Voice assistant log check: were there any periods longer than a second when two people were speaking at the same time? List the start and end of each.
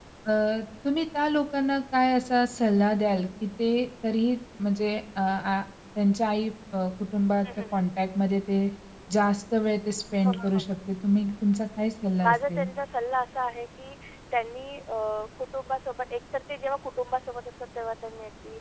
none

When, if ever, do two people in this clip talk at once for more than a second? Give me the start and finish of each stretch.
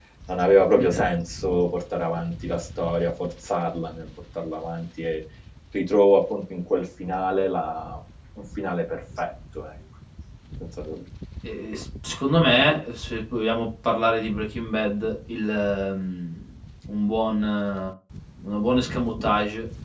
none

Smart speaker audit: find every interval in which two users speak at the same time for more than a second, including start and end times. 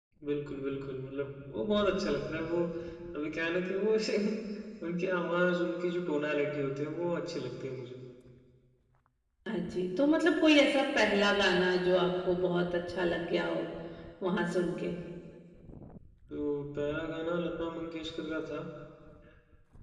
none

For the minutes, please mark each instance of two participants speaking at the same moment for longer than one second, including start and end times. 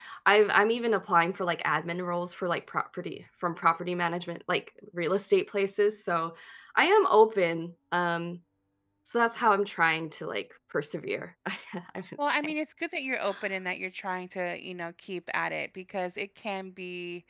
none

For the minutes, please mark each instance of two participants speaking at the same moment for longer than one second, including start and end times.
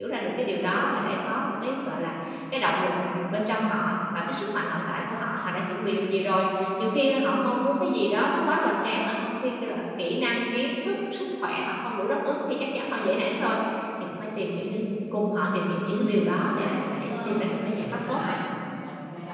15.9-18.2

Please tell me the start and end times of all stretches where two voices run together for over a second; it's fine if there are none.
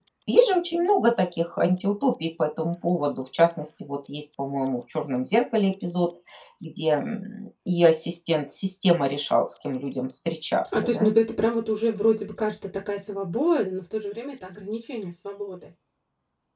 none

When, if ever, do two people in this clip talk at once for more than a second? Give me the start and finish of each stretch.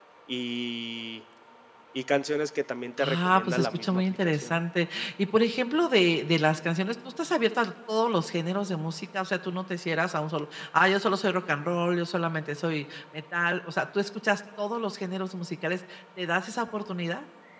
3.0-4.5

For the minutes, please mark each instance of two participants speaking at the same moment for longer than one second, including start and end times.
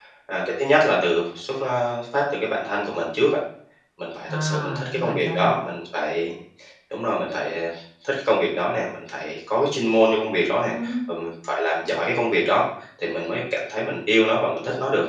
4.3-5.5

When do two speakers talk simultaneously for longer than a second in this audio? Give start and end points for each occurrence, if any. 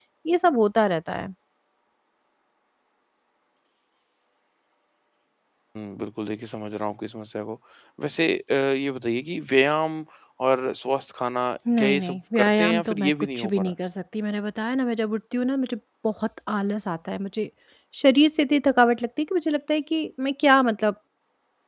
11.8-13.7

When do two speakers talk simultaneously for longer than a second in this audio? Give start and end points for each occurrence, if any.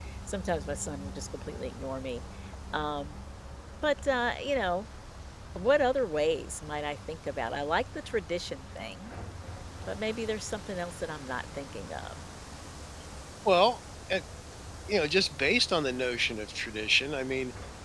none

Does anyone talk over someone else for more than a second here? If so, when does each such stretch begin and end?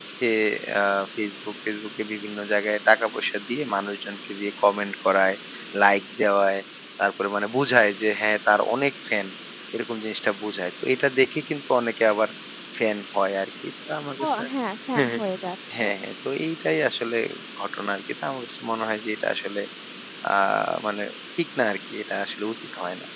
none

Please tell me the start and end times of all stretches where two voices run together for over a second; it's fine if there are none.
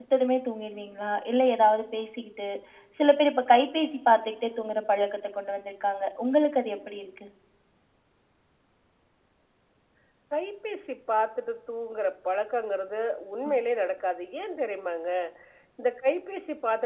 none

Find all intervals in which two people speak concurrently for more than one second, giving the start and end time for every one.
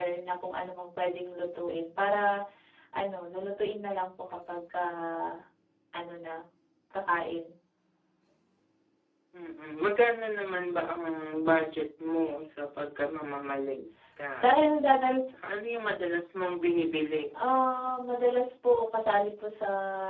none

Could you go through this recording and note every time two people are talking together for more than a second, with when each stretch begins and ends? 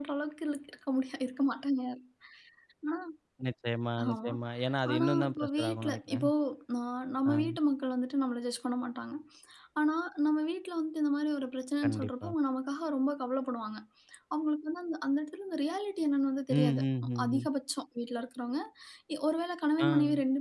4.9-6.3

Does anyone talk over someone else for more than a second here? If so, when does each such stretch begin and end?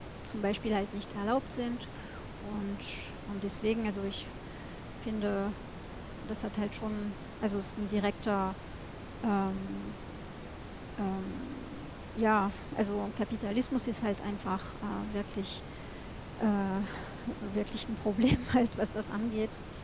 none

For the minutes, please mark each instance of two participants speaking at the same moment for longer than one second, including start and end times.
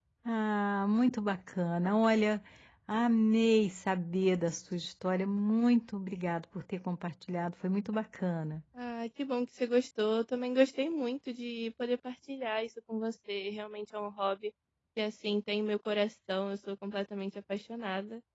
none

